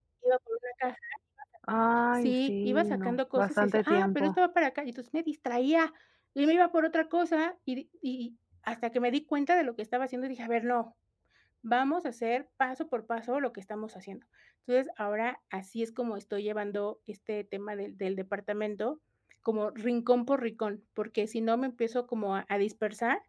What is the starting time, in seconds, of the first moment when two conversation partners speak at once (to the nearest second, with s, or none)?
2 s